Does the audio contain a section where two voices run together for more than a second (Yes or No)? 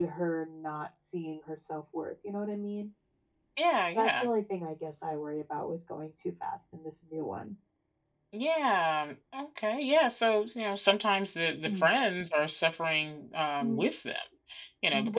No